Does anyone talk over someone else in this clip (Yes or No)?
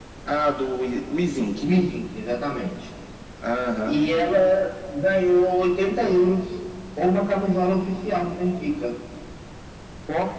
No